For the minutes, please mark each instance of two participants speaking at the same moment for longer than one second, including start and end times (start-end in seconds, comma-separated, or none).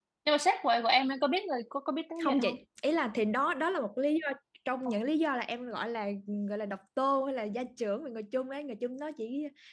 none